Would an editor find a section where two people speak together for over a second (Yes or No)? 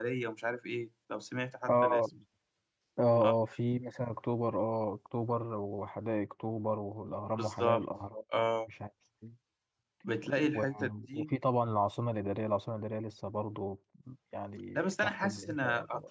Yes